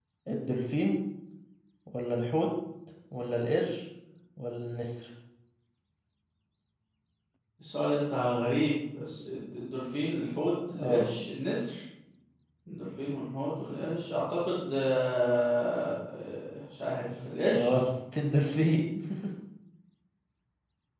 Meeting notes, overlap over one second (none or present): none